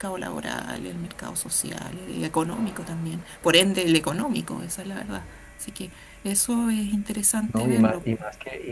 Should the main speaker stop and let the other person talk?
Yes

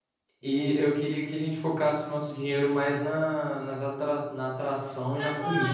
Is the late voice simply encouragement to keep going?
No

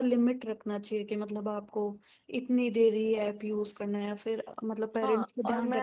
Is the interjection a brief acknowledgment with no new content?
No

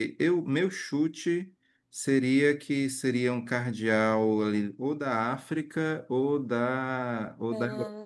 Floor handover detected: No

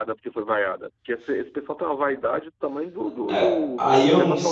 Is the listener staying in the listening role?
No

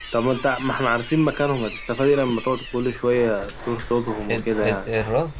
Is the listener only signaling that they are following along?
No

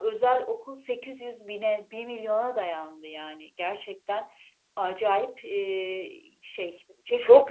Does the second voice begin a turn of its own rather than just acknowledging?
Yes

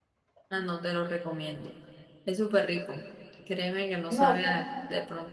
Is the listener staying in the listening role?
Yes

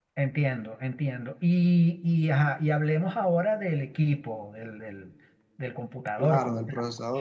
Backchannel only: No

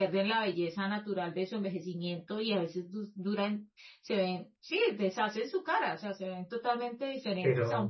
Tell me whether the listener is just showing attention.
Yes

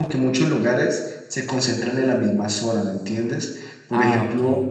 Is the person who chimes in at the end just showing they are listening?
Yes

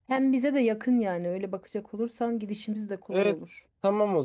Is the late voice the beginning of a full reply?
Yes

